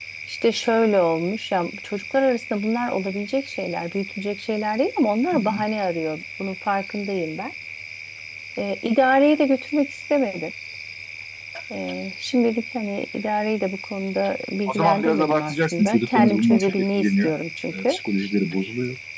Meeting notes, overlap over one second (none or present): present